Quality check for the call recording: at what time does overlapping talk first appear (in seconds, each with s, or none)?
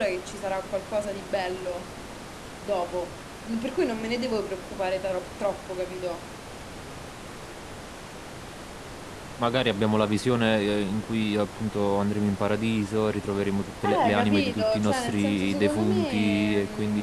13.8 s